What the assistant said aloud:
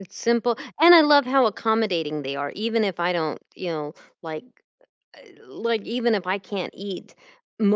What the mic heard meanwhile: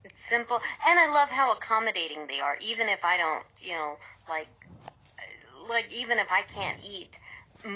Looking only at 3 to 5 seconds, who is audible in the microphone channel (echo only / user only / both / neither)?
echo only